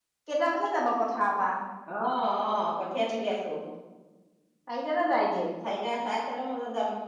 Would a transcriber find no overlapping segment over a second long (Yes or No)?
Yes